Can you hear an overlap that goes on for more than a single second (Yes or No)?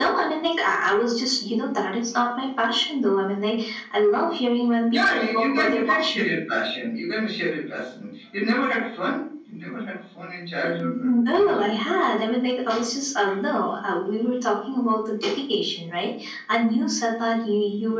Yes